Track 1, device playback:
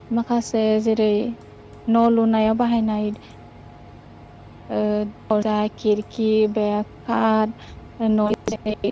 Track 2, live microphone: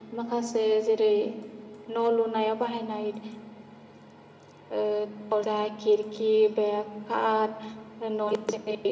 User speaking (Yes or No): No